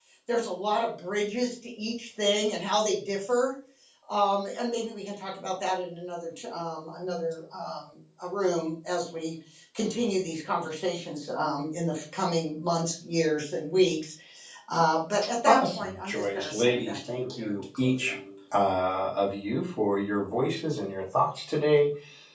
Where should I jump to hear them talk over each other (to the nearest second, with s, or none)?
15 s